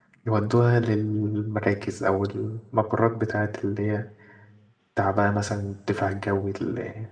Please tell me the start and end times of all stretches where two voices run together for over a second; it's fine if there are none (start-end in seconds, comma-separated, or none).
none